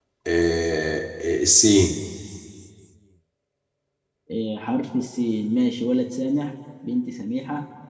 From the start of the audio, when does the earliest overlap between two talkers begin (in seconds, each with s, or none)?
none